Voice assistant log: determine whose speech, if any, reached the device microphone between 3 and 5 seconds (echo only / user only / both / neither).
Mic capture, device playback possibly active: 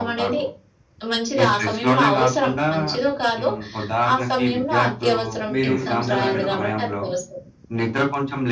echo only